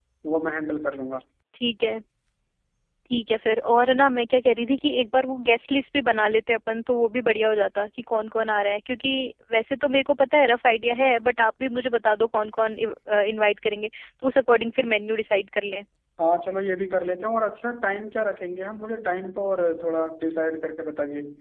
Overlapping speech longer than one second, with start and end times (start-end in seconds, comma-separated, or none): none